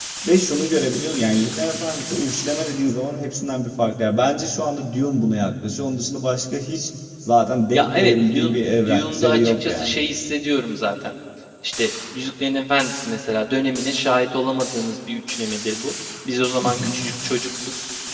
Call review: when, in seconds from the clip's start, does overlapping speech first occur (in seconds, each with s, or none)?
7.7 s